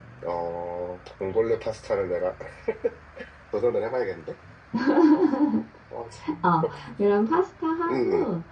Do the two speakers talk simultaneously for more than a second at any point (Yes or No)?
No